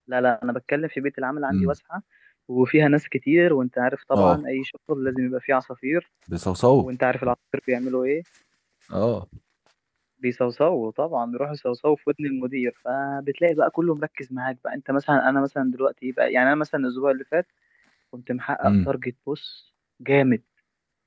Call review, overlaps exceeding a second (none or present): none